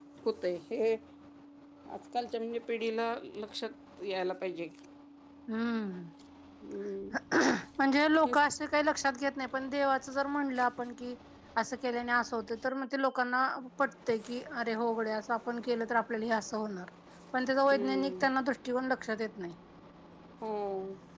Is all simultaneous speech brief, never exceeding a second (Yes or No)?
Yes